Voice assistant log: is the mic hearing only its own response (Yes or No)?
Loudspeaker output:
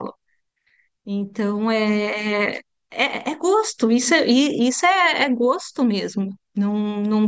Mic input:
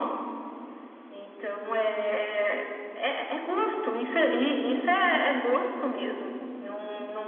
Yes